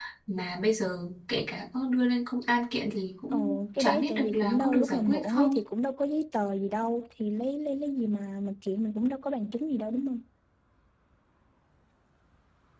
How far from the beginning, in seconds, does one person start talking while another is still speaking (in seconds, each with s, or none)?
3.3 s